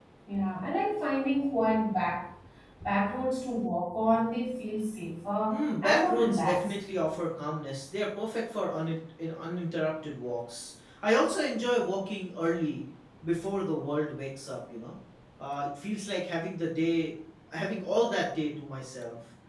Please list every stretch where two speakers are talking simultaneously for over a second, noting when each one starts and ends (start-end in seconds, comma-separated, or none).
5.5-6.7